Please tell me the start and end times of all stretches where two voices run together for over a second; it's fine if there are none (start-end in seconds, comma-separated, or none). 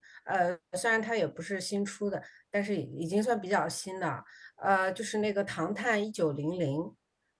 none